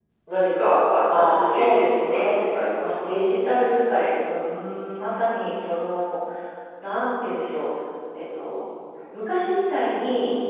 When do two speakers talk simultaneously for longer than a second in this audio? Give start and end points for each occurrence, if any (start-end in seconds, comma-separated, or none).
1.1-2.4